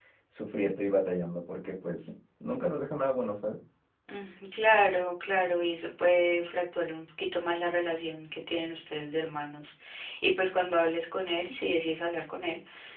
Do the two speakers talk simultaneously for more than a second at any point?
No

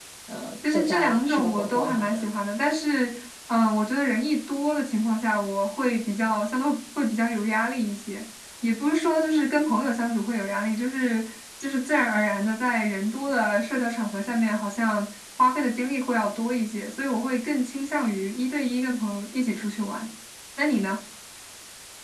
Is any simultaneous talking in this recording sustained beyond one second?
Yes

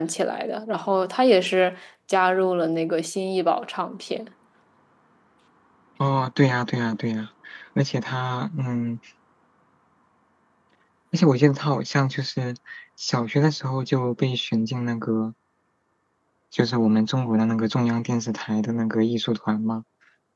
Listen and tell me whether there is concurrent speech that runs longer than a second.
No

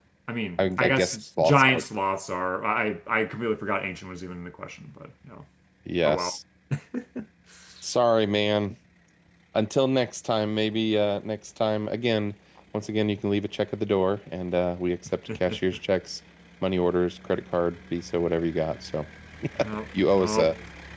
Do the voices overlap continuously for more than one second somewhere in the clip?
Yes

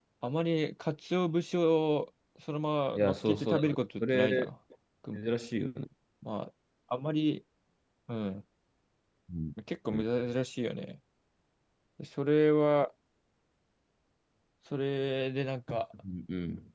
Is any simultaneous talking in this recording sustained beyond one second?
Yes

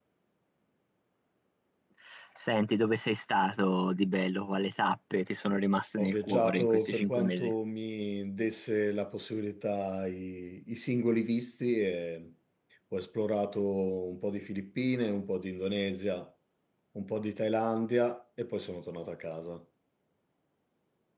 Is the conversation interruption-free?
No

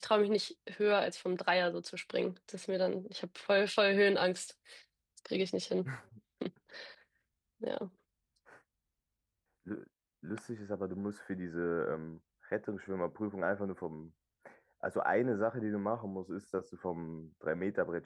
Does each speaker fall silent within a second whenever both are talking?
Yes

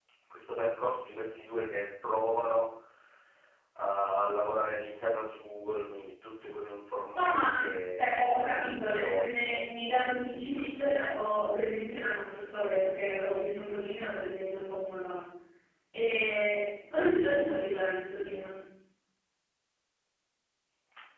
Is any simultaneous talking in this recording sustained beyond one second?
Yes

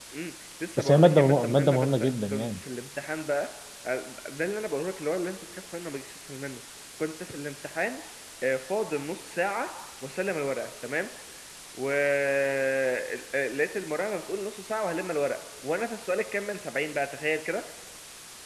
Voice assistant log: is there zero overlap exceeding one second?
No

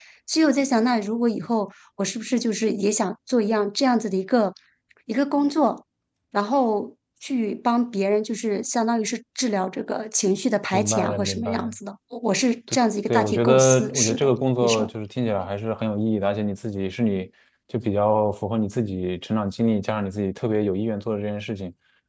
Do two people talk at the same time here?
Yes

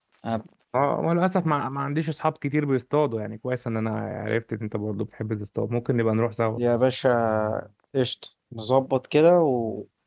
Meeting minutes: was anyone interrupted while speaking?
No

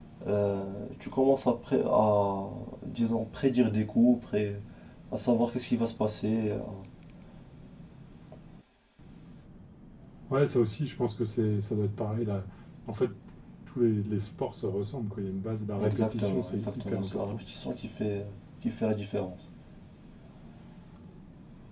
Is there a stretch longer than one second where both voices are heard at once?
Yes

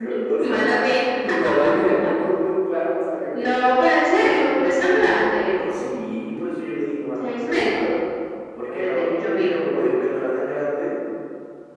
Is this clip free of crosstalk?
No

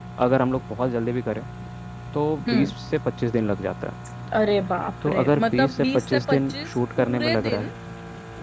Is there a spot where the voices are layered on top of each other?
Yes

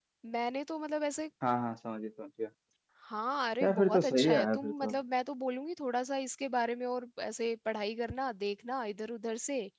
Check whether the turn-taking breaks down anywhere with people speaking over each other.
Yes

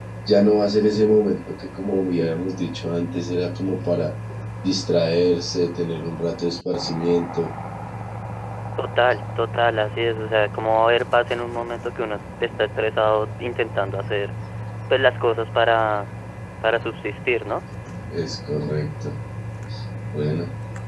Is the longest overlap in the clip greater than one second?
No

